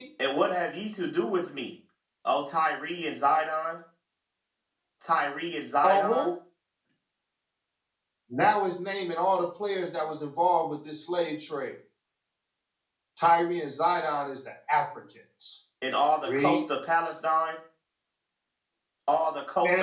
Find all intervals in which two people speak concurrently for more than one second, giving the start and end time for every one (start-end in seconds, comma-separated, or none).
none